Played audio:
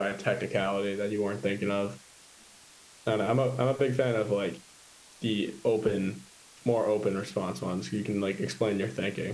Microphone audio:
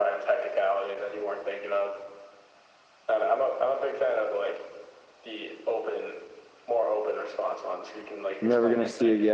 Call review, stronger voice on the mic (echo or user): user